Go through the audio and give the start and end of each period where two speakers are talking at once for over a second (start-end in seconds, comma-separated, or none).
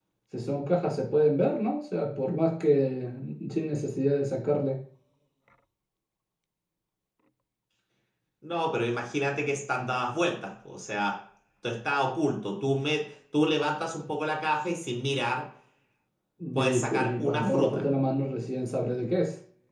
16.6-17.8